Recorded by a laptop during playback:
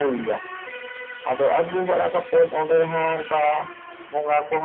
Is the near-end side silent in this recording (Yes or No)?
Yes